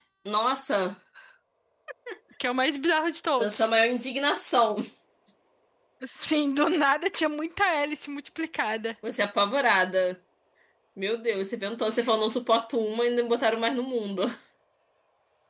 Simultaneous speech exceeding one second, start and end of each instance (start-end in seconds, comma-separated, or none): none